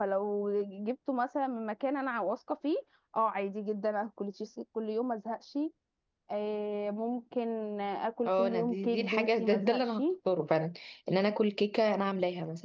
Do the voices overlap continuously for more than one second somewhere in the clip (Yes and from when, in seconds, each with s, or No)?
Yes, from 8.2 s